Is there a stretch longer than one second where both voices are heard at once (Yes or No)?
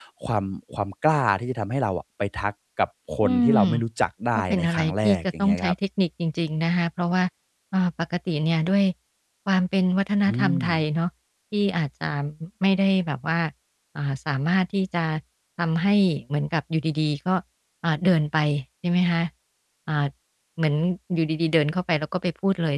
Yes